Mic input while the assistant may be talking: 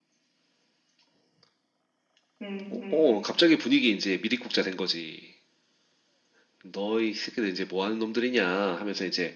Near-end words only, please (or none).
응, 응, 응.